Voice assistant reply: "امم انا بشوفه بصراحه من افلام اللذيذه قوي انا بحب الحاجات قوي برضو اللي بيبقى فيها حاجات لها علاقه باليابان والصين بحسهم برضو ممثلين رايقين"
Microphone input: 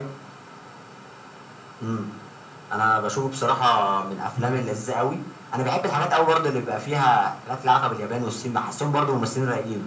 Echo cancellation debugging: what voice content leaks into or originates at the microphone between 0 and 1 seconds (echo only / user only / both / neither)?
neither